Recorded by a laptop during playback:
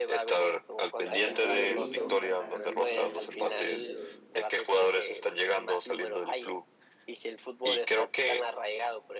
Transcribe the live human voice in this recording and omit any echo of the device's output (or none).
sea, ha habido niños que hasta ganan torneos y ganan dinero, ¿no?